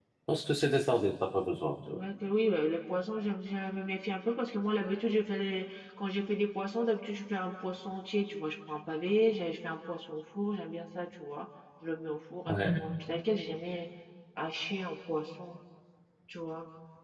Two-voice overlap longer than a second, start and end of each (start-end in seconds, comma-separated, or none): none